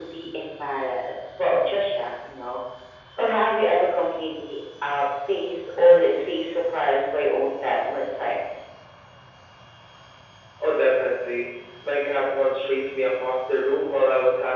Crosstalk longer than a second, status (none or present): none